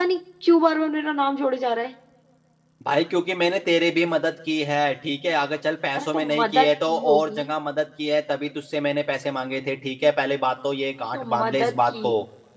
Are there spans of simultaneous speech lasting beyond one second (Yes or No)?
Yes